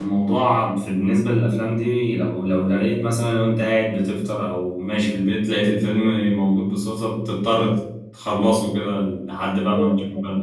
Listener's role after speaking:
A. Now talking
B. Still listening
A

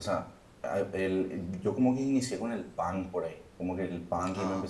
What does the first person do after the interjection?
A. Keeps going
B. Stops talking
A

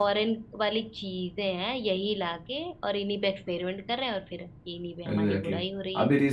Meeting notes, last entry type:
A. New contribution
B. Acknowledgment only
A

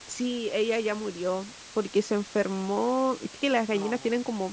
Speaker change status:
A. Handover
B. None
B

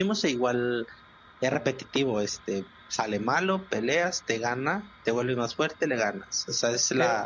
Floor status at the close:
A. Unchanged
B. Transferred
B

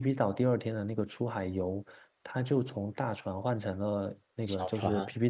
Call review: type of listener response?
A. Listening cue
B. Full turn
A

